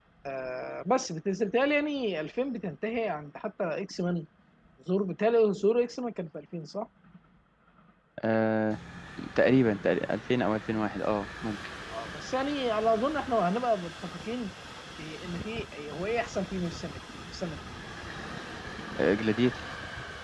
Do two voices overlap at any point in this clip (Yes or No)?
No